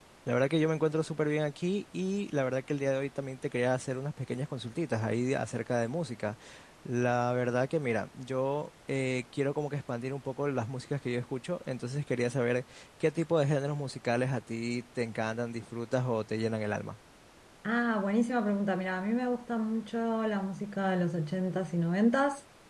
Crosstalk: none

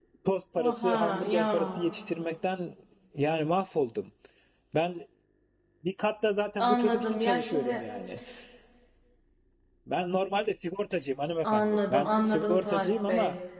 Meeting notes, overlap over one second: present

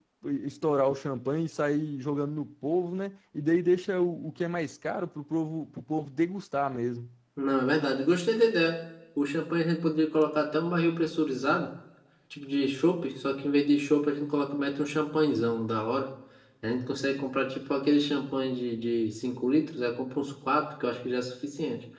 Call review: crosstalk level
none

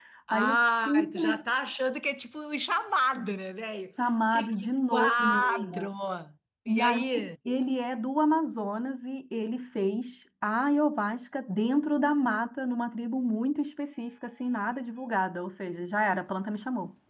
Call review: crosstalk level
present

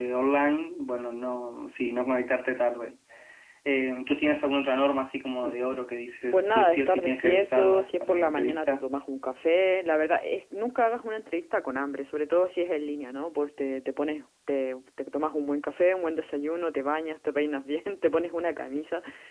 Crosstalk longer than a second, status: present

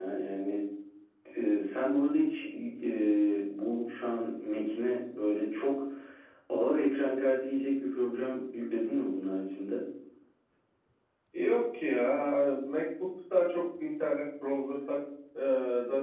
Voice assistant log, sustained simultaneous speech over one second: none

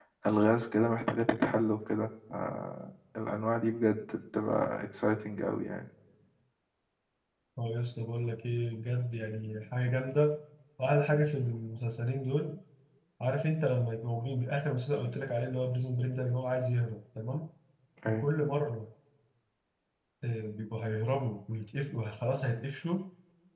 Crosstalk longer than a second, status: none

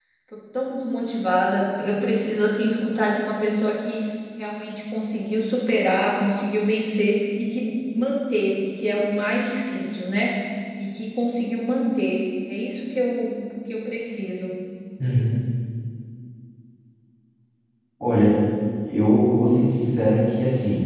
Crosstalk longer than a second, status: none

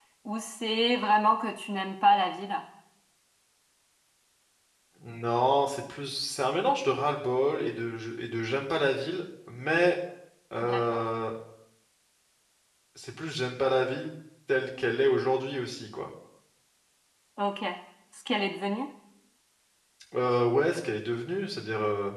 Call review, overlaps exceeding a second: none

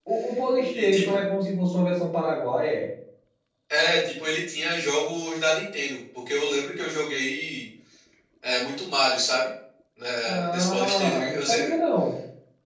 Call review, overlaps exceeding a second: present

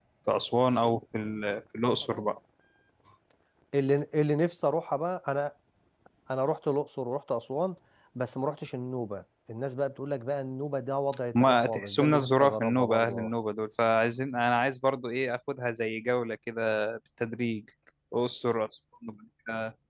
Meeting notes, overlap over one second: present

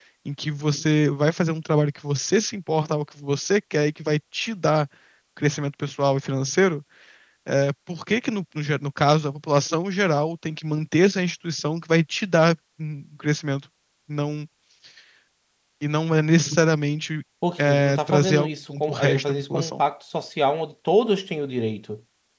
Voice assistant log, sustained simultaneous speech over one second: present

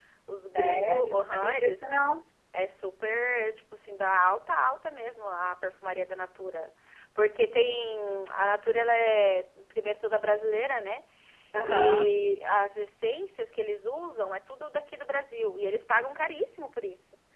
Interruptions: present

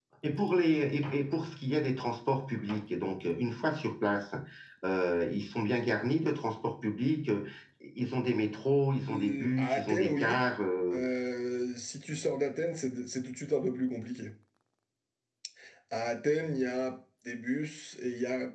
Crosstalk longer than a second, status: present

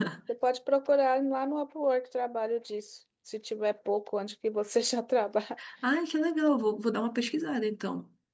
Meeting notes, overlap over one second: none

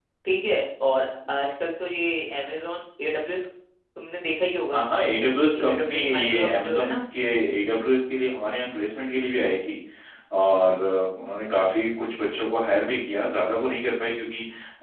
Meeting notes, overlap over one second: present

